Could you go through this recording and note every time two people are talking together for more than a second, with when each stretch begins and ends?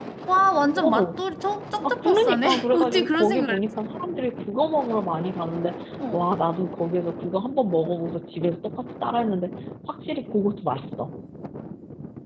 1.9-3.6

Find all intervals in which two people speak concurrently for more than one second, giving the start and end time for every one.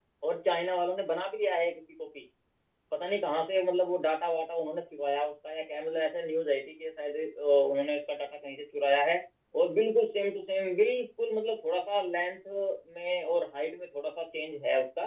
none

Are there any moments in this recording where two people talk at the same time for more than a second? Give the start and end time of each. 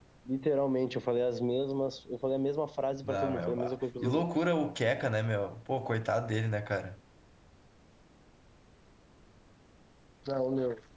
3.0-4.3

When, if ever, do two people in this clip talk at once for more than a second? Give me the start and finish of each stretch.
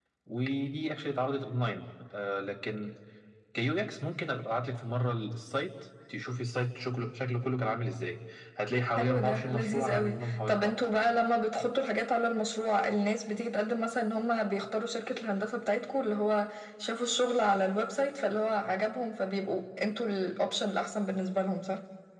9.0-11.0

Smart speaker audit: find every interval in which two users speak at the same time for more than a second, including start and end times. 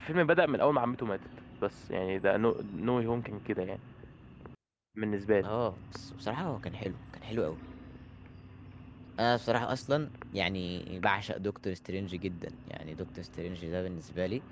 none

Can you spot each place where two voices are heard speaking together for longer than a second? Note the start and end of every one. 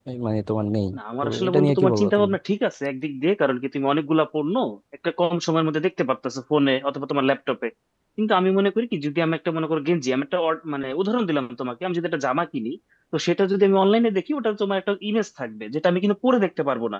1.0-2.3

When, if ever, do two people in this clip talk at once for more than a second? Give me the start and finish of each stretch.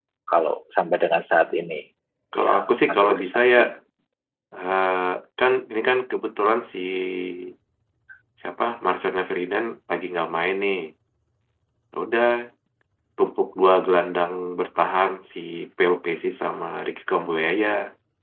2.3-3.6

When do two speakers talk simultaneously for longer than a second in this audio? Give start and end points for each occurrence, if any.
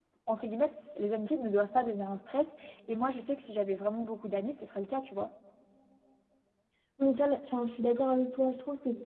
none

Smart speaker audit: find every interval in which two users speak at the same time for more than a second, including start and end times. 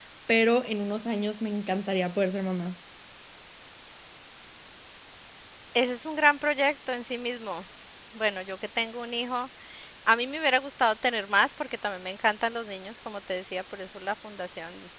none

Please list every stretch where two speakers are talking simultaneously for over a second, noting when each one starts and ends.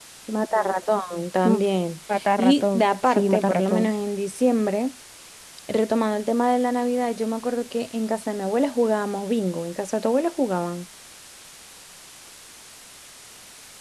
2.4-3.9

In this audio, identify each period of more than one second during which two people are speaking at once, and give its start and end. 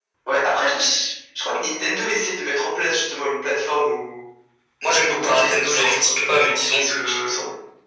5.0-7.4

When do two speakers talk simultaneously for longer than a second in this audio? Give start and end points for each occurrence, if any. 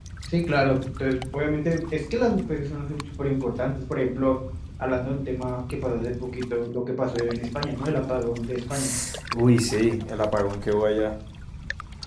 none

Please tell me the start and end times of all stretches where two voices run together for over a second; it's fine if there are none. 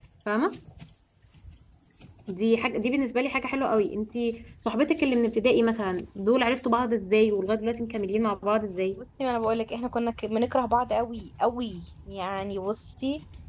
none

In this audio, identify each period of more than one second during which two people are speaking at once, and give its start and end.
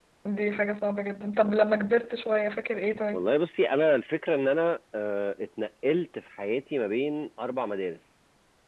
none

